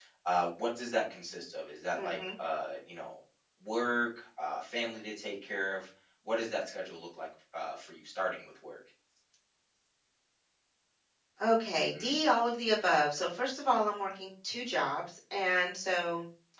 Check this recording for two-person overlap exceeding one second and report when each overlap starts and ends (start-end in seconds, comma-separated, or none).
none